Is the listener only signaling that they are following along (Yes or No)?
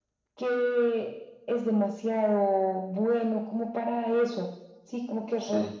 Yes